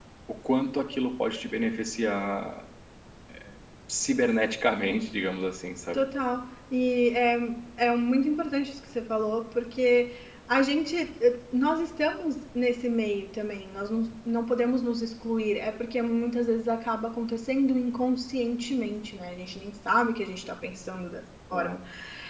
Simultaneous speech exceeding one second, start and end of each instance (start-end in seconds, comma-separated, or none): none